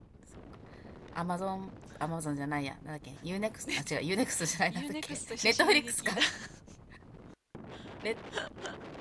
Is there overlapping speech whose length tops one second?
Yes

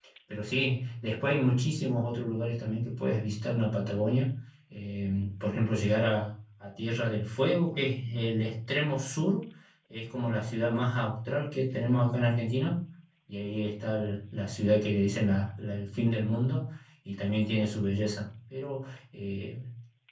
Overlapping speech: No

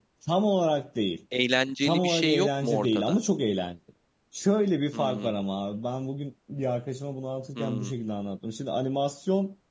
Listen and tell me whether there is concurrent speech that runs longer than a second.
Yes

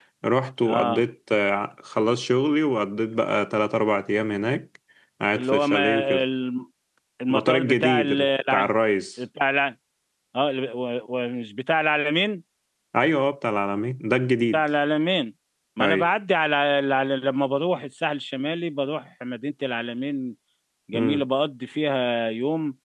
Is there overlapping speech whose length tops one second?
Yes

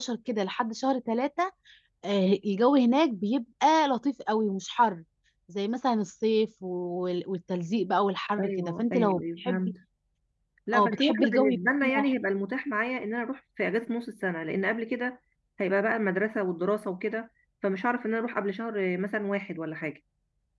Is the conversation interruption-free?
No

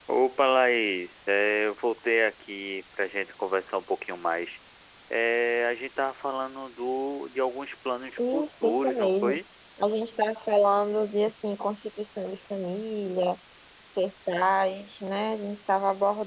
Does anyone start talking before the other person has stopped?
Yes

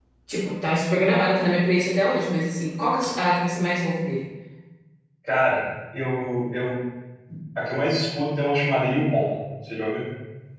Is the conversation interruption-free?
Yes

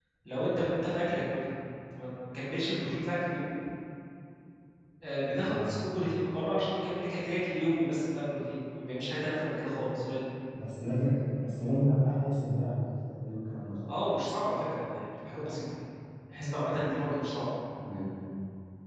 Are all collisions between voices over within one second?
Yes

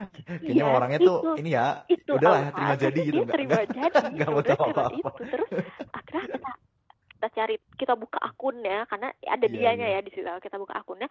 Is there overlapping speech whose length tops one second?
Yes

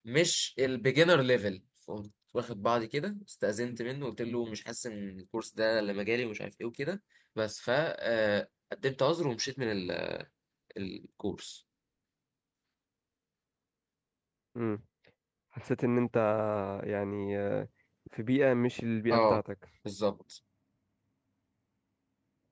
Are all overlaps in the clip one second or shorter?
Yes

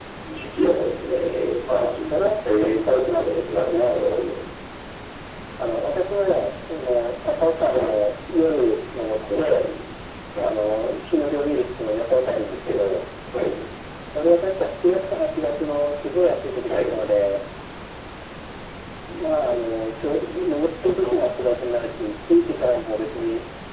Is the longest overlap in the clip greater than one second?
Yes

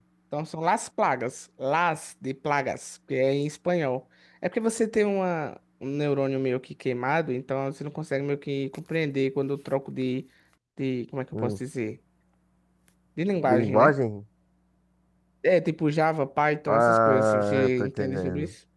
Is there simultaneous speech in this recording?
Yes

